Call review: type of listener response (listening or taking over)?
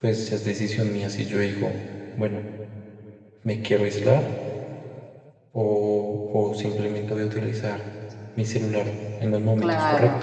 taking over